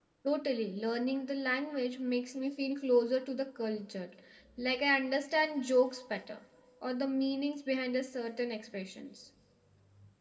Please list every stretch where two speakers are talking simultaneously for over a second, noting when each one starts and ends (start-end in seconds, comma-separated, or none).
none